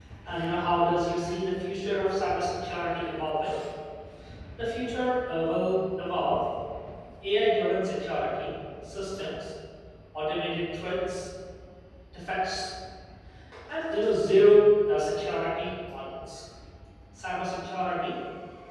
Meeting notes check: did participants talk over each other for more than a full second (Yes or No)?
No